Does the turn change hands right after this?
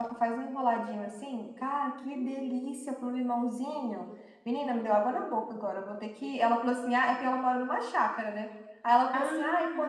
No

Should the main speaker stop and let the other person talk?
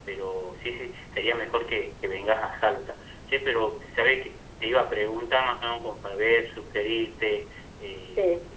No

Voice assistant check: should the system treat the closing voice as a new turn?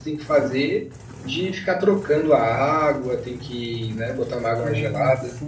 Yes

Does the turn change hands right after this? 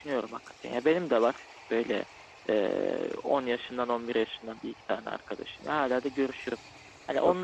No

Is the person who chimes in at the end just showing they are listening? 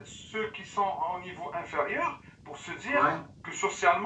Yes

